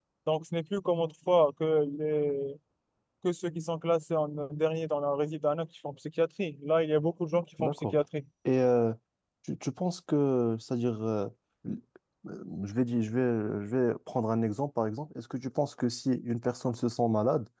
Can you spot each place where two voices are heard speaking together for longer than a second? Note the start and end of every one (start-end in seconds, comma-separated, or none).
none